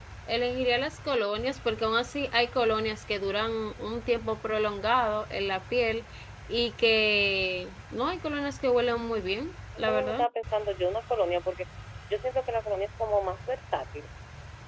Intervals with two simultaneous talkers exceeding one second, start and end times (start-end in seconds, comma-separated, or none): none